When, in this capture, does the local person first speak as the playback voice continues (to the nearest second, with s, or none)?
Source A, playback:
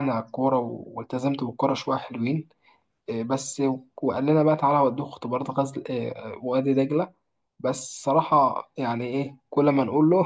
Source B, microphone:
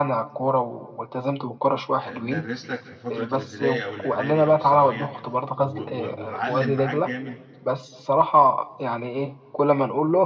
2 s